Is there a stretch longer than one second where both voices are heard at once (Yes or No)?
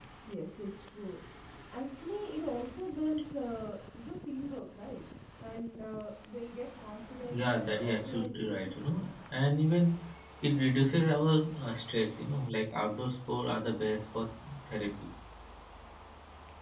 Yes